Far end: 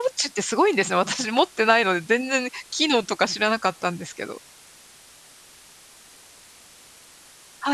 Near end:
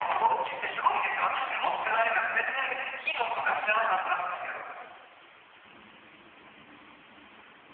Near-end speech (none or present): none